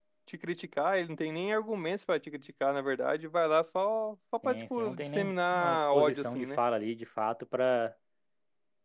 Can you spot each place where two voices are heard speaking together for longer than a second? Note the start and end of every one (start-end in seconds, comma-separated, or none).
4.4-6.6